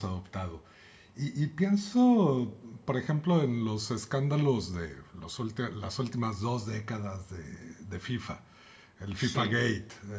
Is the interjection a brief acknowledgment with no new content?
Yes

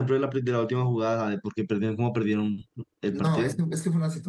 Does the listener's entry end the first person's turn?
Yes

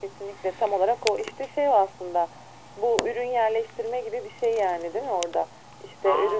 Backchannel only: Yes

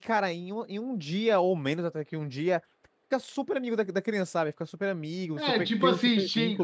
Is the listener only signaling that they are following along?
No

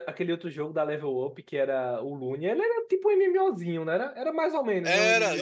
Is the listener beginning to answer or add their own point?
Yes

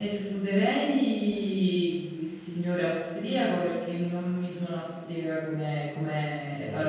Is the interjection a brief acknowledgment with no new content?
Yes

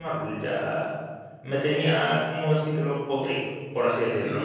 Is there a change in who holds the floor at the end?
Yes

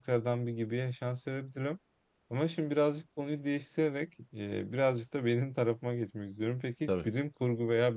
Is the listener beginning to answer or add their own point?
No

